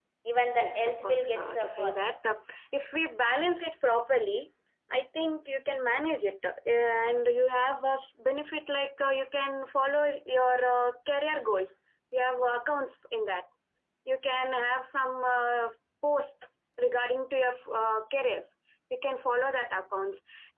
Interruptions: present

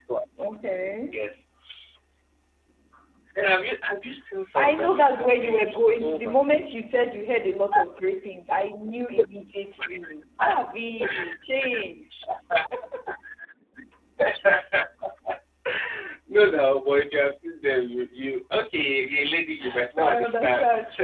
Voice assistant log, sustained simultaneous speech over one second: present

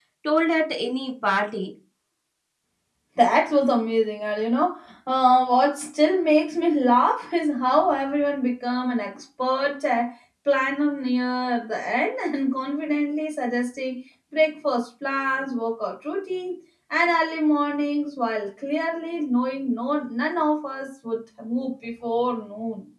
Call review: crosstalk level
none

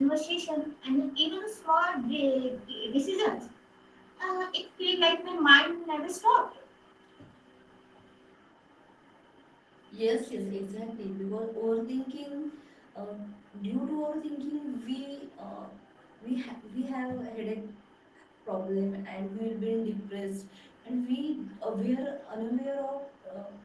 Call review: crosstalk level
none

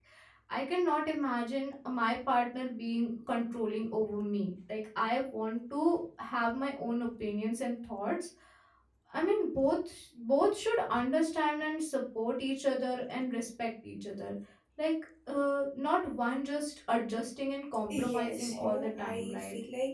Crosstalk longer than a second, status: present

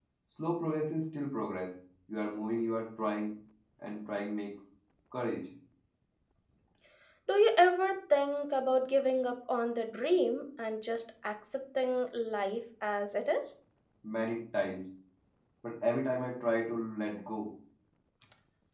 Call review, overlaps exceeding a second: none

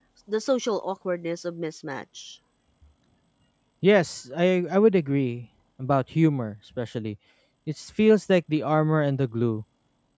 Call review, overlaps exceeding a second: none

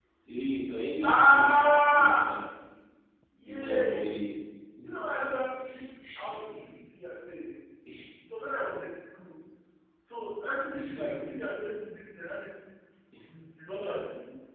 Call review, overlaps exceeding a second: present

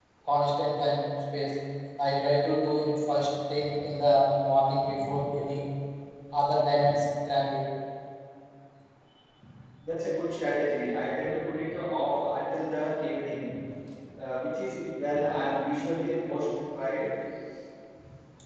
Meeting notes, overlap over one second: none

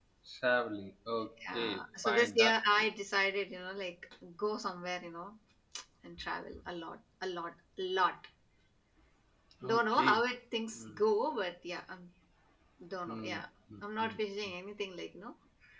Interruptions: present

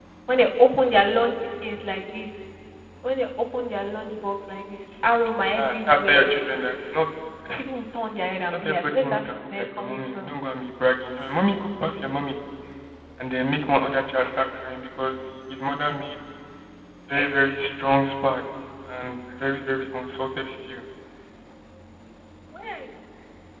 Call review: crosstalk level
present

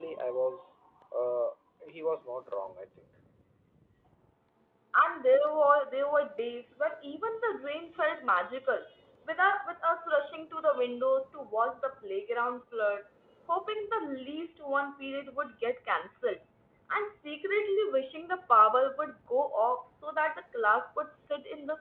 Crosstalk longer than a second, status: none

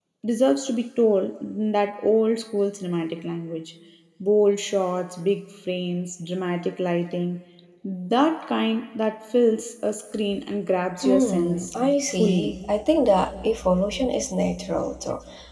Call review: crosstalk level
present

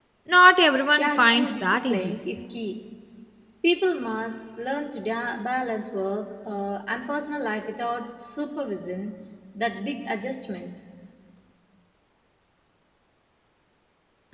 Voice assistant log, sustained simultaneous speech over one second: present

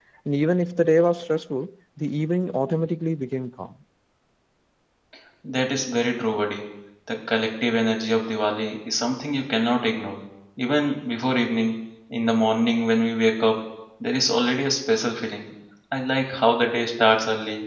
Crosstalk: none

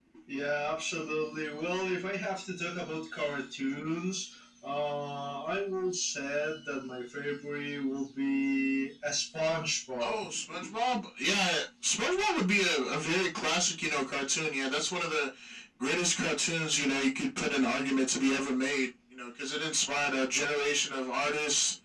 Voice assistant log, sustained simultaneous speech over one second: none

